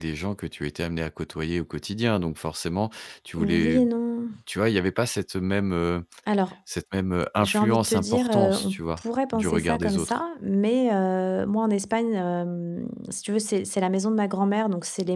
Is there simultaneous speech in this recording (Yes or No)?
Yes